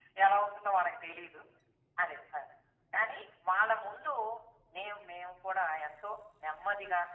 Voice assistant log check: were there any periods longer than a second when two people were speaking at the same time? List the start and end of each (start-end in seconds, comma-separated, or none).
none